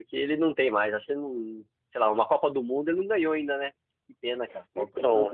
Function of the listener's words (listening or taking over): taking over